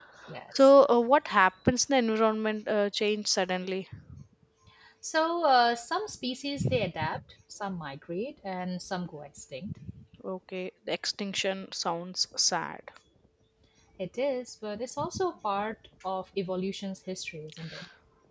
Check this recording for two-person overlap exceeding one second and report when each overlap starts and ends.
none

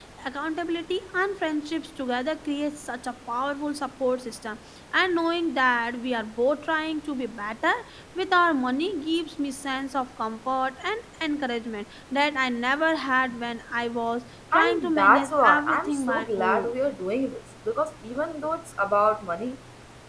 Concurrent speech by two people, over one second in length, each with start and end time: 14.5-16.7

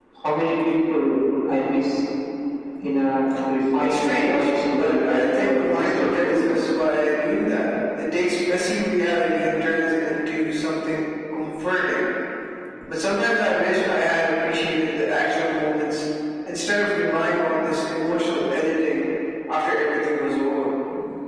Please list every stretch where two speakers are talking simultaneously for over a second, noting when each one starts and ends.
3.8-6.5

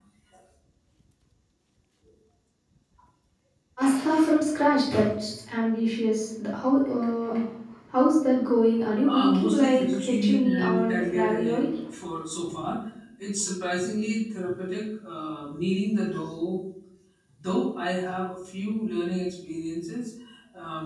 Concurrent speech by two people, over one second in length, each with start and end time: 9.0-11.6

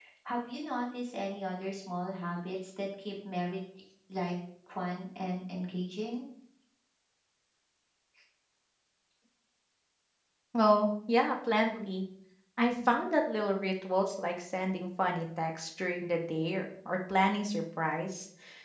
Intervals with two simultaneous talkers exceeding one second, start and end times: none

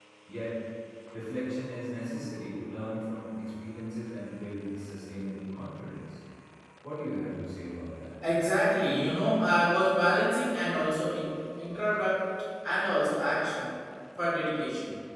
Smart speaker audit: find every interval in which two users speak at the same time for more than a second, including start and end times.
none

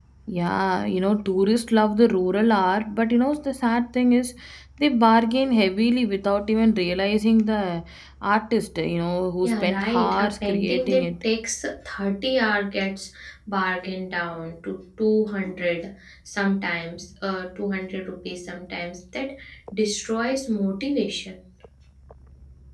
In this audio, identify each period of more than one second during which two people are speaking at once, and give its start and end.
9.4-11.0

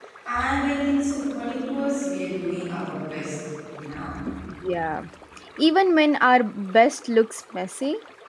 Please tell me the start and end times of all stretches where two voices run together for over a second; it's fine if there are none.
none

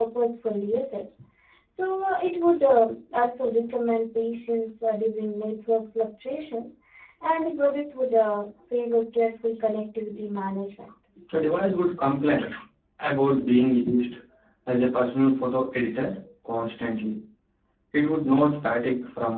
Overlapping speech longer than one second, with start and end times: none

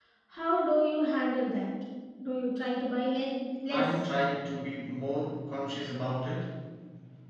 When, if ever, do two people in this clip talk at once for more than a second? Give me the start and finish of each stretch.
none

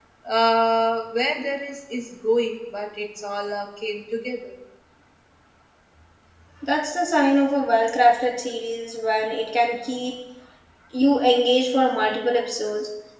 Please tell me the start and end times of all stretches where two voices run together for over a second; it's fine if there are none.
none

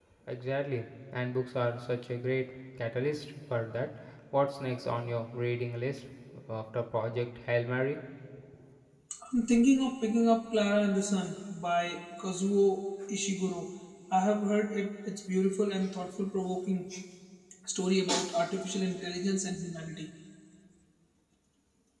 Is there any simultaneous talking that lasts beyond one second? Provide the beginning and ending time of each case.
none

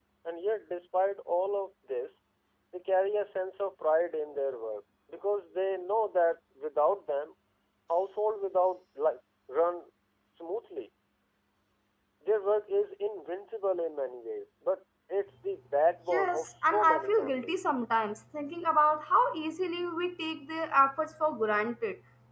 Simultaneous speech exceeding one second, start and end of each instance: 16.1-17.7

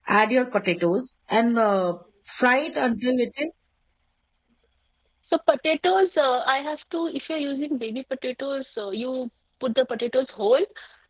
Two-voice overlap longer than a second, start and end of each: none

